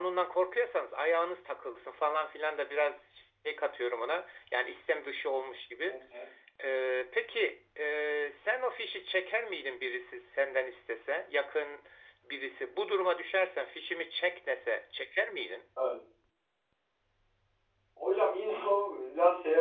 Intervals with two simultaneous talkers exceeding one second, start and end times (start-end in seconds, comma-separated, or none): none